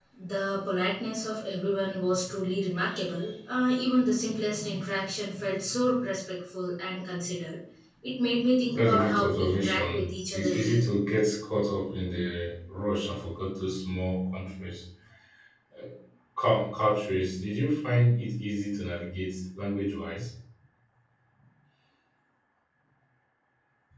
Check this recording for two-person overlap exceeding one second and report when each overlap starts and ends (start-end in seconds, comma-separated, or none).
8.7-10.8